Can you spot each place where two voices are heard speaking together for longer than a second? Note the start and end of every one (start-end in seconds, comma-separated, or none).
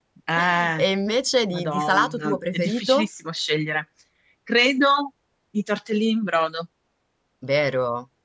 1.5-3.1